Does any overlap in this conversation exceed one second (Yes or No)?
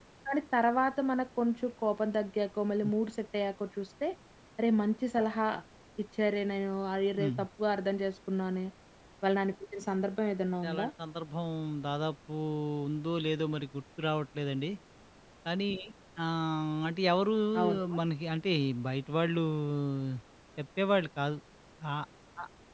No